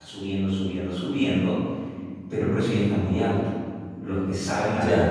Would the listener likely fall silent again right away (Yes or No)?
Yes